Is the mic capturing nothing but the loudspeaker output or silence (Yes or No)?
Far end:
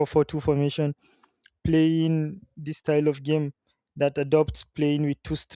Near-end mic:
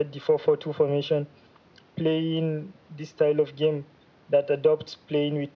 Yes